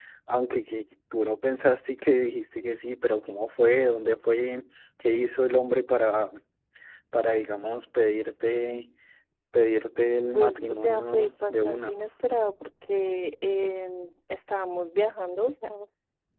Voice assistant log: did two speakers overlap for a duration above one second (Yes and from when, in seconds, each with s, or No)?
Yes, from 10.3 s